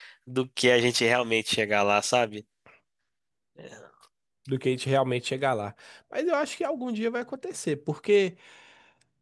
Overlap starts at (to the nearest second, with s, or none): none